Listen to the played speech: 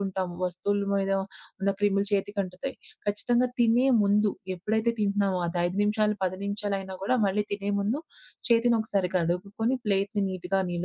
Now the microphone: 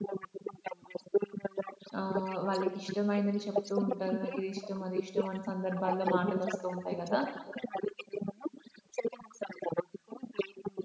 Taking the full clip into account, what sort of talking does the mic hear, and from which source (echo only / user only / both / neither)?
both